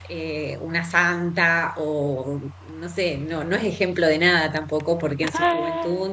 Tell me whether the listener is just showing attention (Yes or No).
Yes